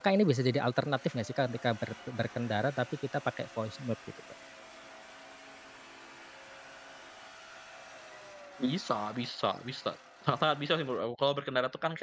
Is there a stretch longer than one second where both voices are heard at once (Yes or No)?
No